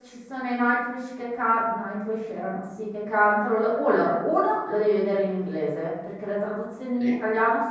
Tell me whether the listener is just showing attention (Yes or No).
Yes